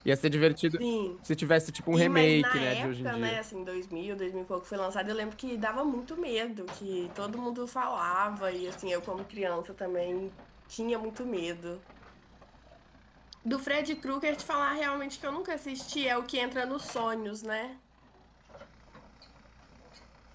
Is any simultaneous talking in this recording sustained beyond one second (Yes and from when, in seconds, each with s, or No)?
Yes, from 1.9 s